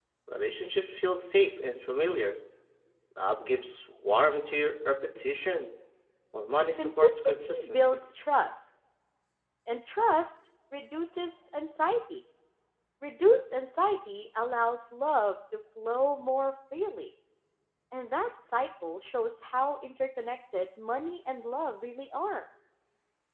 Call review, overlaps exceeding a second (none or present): present